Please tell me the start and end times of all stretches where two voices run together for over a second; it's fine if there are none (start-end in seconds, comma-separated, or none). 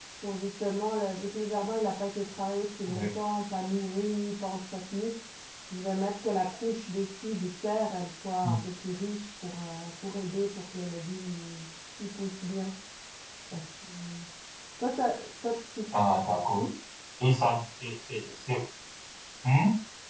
none